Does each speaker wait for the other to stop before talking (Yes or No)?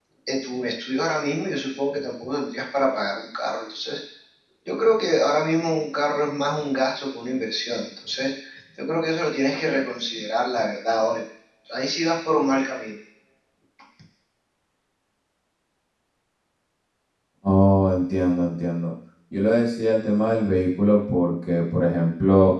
Yes